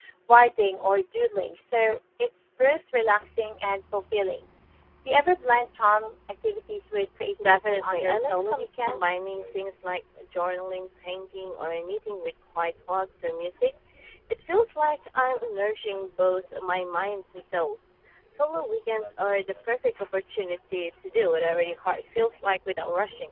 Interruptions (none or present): present